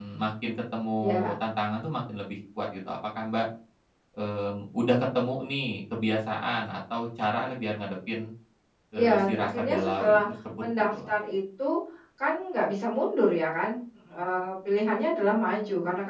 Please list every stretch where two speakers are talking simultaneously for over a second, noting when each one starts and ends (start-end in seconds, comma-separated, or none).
8.9-10.2